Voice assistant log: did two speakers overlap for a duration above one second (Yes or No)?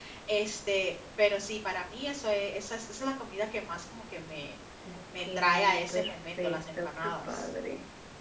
Yes